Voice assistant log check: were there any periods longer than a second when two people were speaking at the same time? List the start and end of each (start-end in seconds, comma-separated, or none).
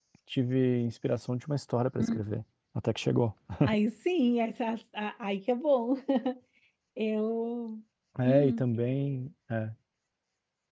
none